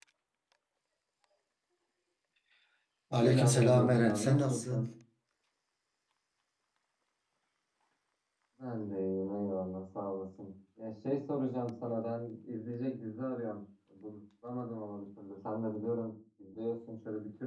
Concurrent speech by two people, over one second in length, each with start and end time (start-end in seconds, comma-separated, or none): 3.2-4.8